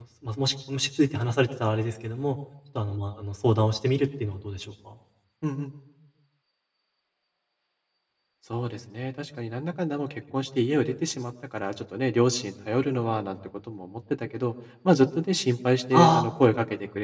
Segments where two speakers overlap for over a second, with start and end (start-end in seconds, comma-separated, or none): none